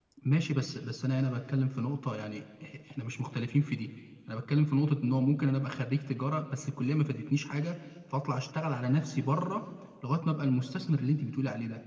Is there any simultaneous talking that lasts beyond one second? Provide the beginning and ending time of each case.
none

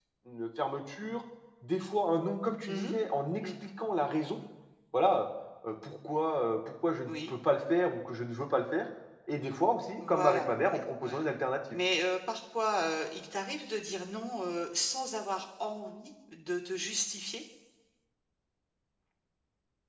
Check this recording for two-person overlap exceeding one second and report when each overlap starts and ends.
10.1-11.3

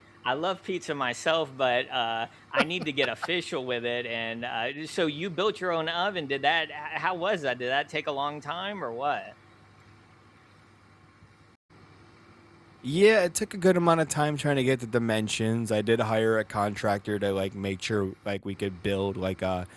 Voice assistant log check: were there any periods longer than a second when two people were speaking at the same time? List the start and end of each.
none

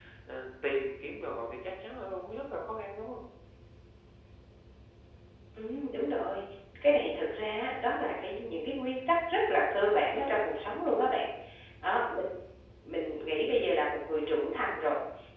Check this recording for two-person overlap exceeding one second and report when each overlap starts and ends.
none

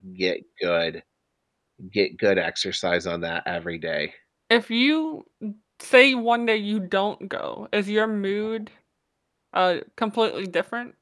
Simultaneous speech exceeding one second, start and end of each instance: none

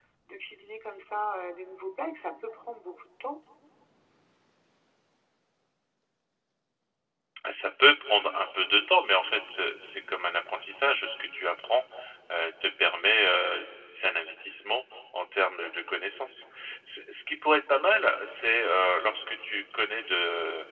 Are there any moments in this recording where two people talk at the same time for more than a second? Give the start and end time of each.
none

